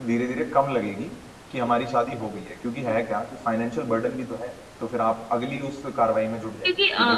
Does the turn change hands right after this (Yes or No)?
Yes